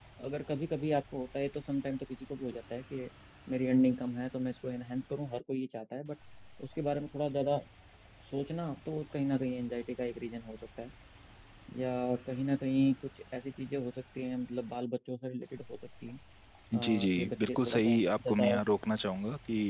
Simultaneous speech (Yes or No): Yes